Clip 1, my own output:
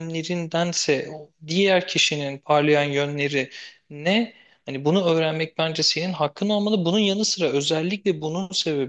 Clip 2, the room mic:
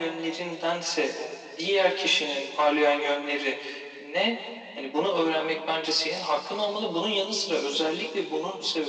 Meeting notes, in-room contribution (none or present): none